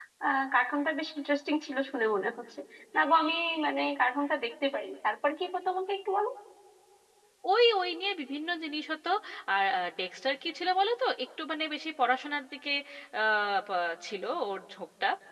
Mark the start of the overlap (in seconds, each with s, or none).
none